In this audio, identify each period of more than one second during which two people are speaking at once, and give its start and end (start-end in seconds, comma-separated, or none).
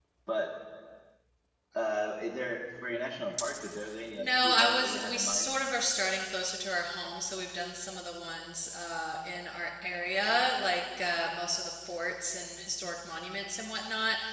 4.2-5.5